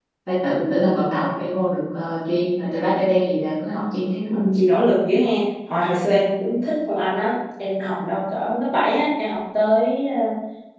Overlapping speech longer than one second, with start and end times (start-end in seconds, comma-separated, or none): none